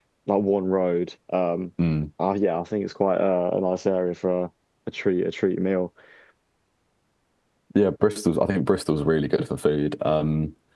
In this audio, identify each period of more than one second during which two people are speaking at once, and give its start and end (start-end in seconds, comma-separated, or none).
none